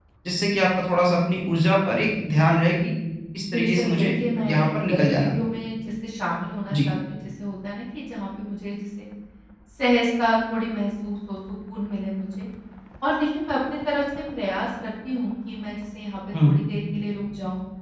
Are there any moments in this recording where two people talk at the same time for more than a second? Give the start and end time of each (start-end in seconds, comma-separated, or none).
3.5-5.3